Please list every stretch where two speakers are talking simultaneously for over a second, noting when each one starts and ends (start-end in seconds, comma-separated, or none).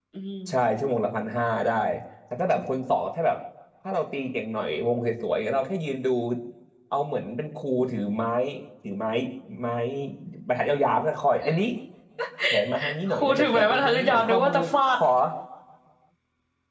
13.1-14.6